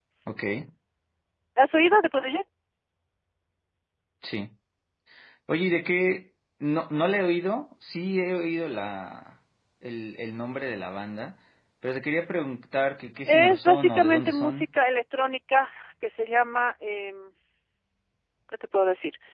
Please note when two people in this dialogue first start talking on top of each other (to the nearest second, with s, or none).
13 s